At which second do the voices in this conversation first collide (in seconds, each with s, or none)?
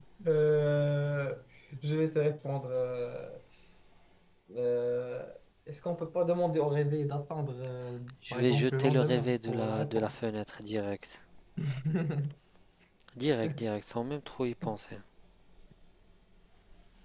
8.2 s